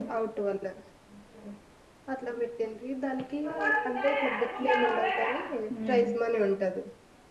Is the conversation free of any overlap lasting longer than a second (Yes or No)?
No